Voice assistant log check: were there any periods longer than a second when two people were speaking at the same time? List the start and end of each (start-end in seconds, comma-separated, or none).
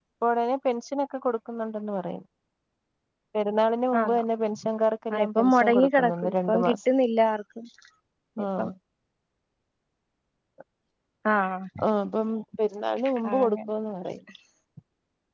5.1-6.8